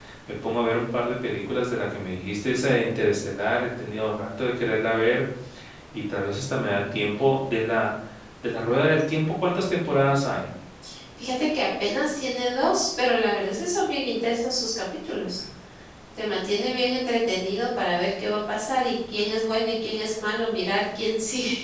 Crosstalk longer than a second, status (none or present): none